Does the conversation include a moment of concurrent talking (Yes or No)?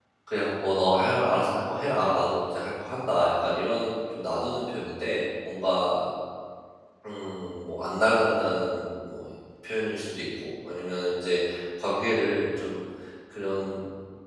No